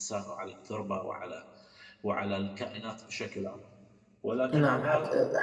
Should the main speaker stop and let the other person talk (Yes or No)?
Yes